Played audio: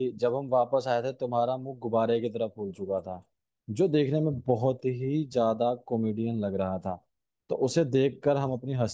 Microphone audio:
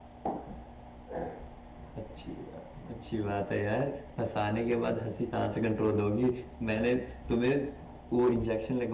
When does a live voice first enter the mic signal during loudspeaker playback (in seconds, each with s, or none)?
2.0 s